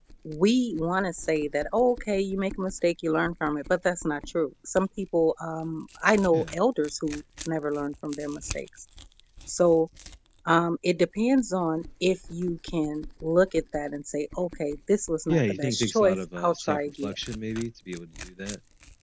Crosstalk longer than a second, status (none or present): present